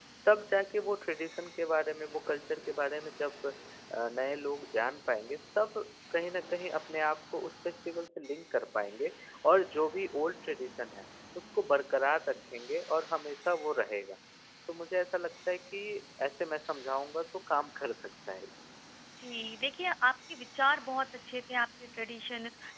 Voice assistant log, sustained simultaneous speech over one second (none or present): none